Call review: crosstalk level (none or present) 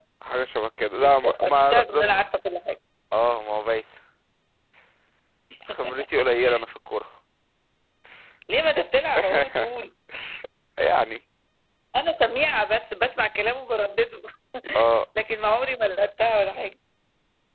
present